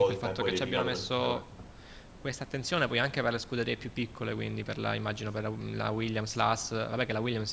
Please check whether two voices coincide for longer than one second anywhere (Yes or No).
Yes